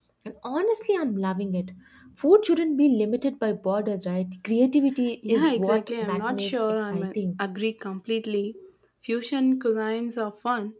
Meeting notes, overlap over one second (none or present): present